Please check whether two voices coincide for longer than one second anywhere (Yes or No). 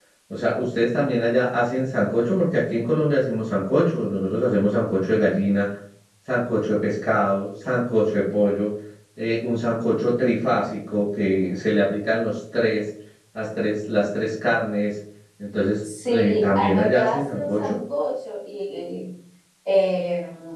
Yes